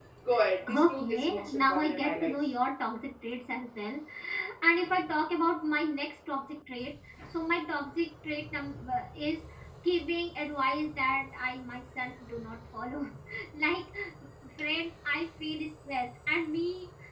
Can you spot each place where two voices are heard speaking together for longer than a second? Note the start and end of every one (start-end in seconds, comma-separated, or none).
0.7-2.3